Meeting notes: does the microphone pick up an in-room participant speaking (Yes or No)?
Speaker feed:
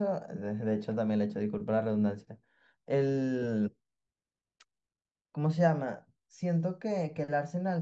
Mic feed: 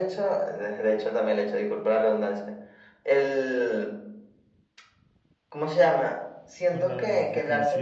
Yes